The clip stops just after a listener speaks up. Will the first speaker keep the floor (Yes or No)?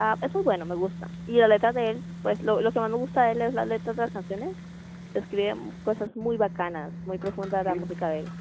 No